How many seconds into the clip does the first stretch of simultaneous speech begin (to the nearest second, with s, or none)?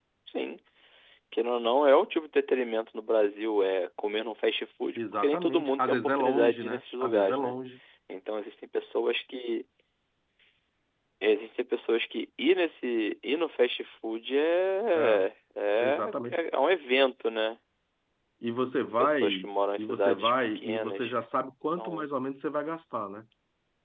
5 s